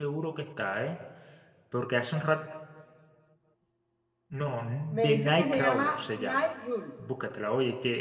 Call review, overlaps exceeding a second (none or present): present